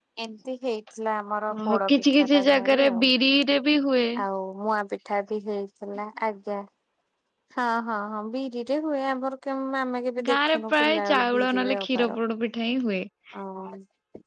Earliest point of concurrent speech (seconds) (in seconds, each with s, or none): 1.6 s